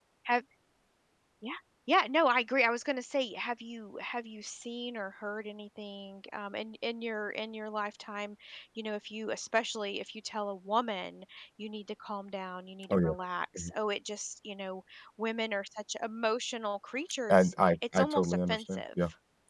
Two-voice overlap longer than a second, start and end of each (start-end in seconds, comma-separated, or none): 17.3-18.8